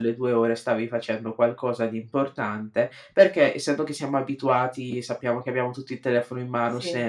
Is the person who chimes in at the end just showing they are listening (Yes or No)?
Yes